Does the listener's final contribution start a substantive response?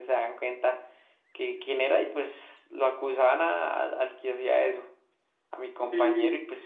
No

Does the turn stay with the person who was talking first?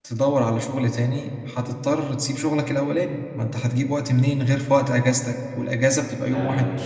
No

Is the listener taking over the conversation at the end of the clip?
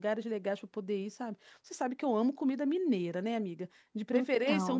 No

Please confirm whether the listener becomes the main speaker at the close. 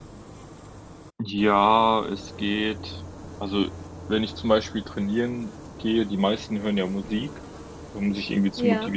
No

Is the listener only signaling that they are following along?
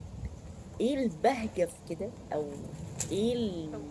Yes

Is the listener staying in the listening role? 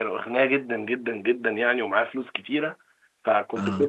Yes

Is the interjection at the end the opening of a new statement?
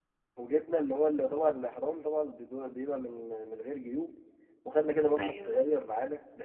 No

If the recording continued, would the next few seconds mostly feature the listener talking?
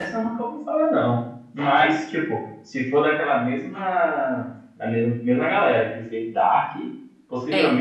No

